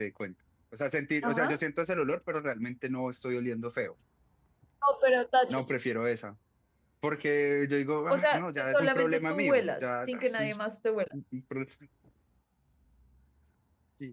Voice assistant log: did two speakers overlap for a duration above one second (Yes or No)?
Yes